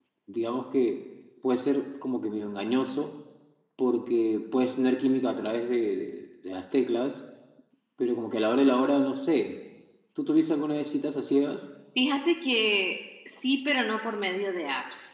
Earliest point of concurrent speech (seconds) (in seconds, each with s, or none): none